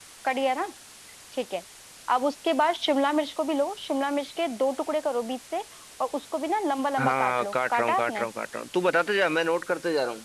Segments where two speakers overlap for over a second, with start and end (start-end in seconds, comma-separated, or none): 7.0-8.3